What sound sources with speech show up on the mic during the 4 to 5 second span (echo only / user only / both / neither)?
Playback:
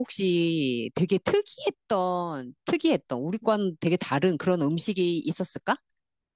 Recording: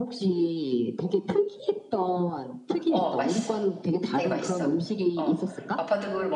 both